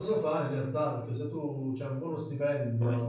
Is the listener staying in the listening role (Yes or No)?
Yes